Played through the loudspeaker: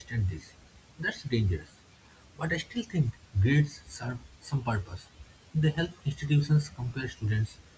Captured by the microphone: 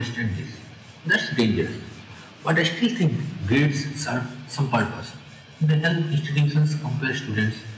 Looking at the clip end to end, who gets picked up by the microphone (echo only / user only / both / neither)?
echo only